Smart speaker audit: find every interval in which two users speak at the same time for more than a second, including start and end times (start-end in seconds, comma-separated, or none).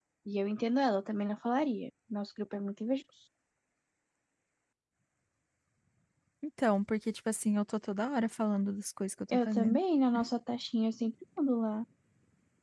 none